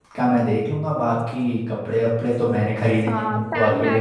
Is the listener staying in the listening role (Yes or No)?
No